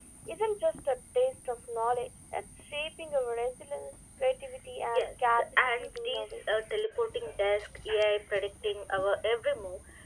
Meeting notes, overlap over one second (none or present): present